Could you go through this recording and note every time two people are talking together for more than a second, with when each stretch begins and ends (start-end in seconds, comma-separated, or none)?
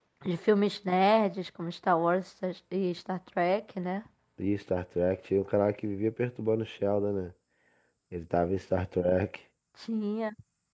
none